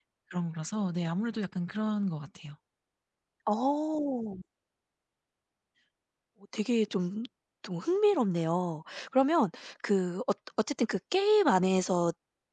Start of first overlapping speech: none

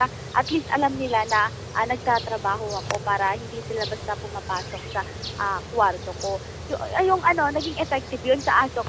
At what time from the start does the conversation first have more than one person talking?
none

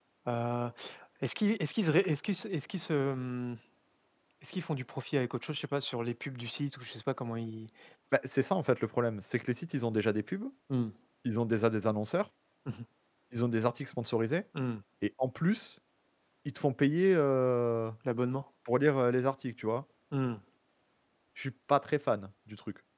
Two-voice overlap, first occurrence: none

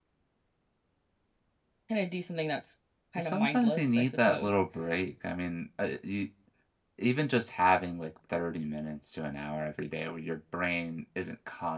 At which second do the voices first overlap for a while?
3.2 s

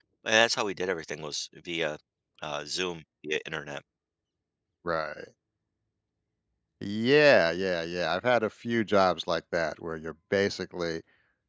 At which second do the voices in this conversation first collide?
none

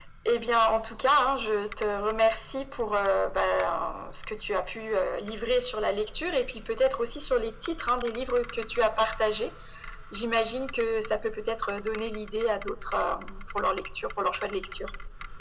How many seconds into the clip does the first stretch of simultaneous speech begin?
none

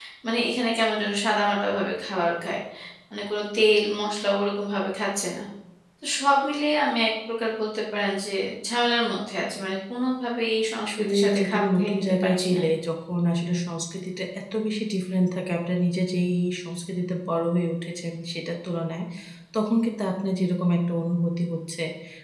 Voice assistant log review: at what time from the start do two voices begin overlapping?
10.8 s

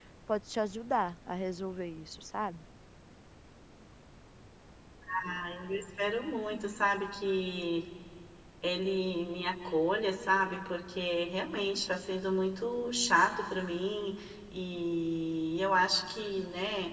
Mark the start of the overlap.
none

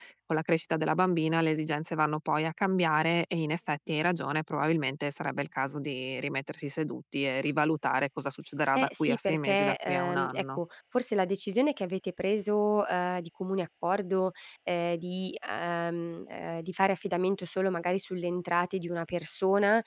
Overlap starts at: 8.8 s

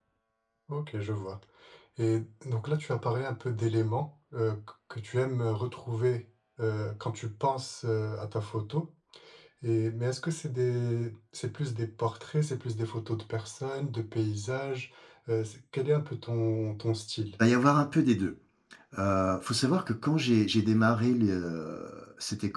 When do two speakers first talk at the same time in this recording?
none

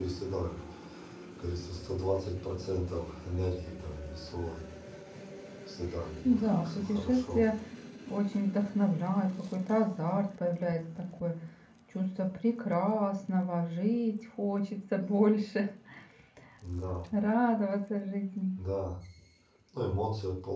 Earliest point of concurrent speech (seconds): 6.2 s

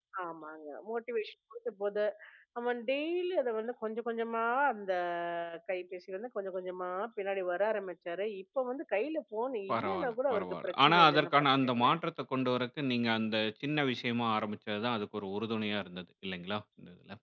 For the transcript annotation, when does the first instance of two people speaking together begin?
9.7 s

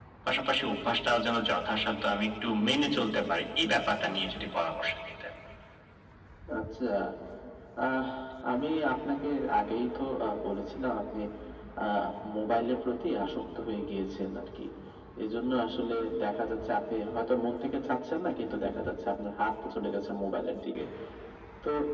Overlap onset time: none

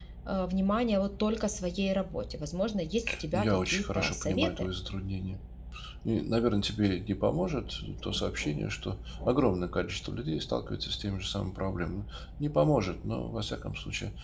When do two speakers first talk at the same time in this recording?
3.3 s

